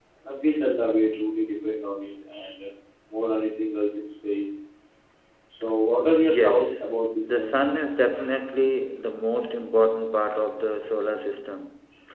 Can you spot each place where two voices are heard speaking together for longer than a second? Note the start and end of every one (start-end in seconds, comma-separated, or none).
6.2-7.6